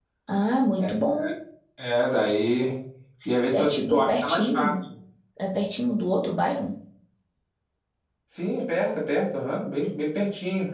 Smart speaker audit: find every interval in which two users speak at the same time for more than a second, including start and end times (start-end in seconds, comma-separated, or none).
3.5-4.7